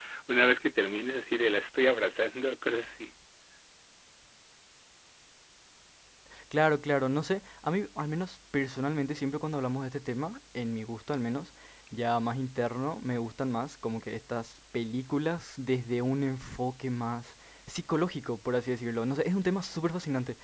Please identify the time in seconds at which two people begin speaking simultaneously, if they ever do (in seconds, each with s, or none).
none